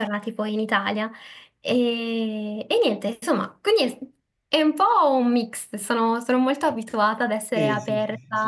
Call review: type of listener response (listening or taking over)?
taking over